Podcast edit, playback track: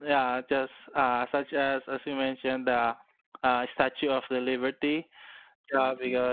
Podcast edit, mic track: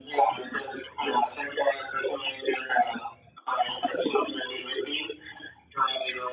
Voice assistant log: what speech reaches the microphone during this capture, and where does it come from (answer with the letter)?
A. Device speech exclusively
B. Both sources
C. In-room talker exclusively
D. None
A